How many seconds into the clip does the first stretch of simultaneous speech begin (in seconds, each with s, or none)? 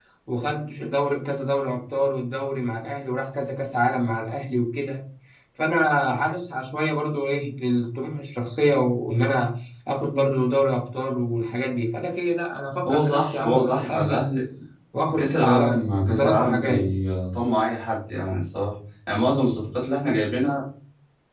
12.9 s